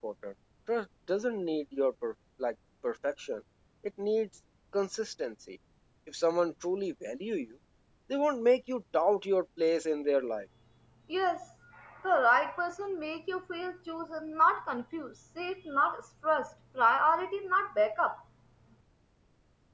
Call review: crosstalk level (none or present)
none